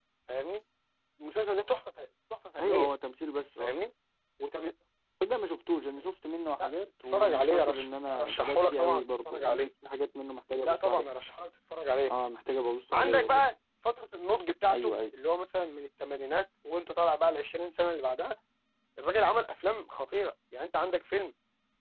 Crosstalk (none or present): present